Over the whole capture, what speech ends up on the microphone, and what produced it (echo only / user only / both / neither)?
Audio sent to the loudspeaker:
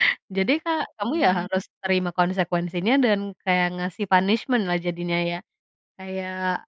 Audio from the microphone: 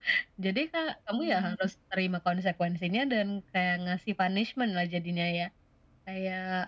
echo only